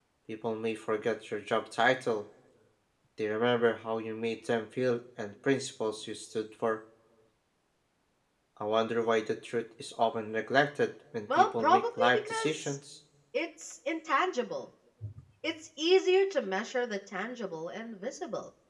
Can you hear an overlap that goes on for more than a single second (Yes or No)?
Yes